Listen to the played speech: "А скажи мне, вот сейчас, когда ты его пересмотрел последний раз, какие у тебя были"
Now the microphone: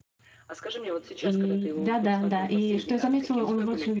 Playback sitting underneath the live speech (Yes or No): Yes